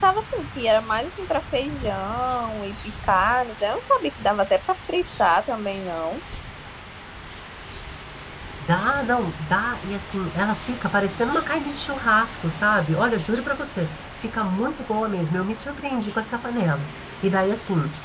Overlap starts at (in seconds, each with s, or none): none